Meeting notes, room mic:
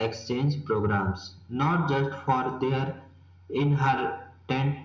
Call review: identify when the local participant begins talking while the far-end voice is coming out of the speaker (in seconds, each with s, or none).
none